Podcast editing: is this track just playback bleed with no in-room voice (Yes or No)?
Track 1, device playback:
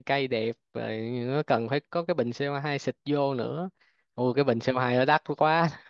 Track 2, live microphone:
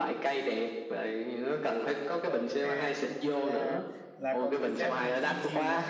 No